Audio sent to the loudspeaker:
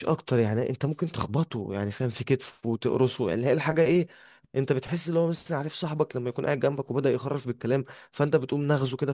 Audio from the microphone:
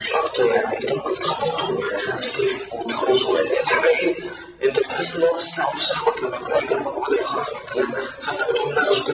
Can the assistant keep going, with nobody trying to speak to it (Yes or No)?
Yes